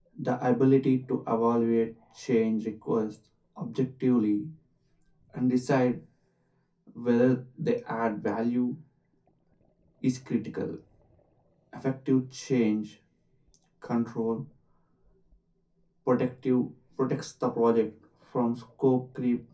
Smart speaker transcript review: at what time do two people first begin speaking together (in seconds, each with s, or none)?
none